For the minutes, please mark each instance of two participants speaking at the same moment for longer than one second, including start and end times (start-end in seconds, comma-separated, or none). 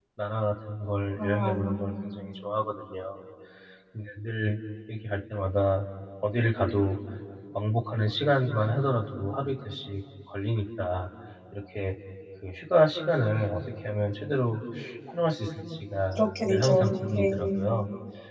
16.2-17.4